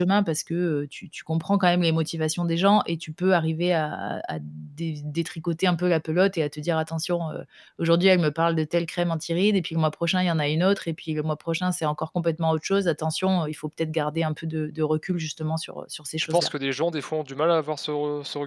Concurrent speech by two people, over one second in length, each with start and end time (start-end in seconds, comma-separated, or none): none